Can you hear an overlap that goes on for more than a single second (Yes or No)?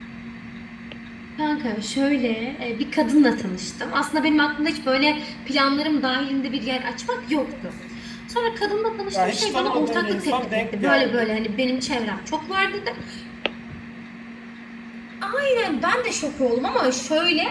Yes